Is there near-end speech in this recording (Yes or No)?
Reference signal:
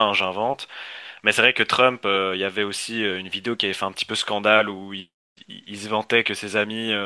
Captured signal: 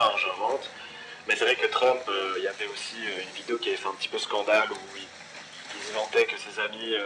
No